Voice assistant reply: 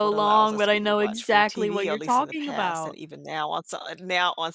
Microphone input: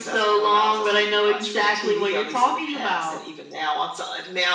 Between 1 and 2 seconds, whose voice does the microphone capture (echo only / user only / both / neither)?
echo only